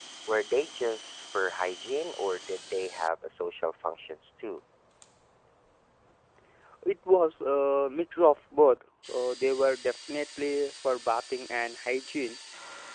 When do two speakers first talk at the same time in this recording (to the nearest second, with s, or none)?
none